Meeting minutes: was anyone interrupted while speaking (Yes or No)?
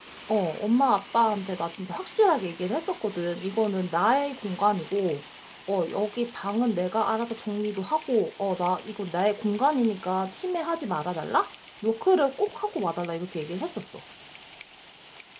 No